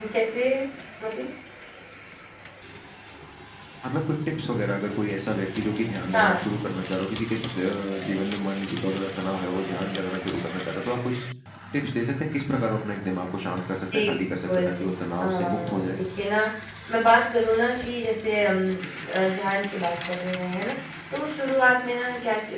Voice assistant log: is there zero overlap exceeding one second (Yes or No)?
No